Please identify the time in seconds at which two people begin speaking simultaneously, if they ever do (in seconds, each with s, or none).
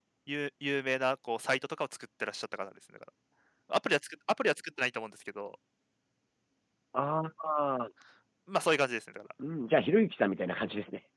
none